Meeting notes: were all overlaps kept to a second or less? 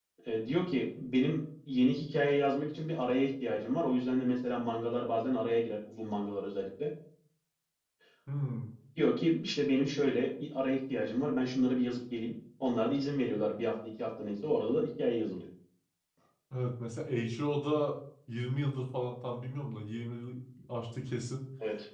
Yes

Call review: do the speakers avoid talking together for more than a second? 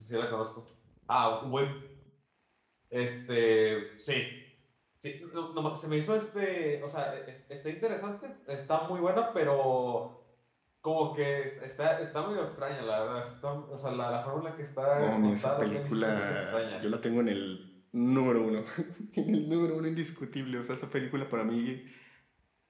No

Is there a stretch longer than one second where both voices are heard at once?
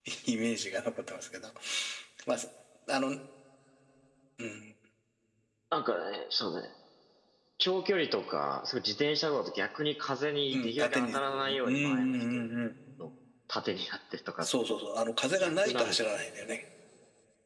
Yes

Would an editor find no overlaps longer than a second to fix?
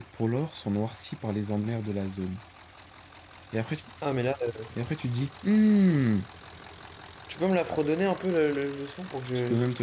Yes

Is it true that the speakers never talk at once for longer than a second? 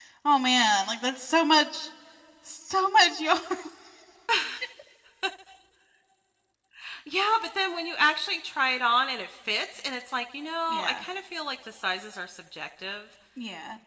Yes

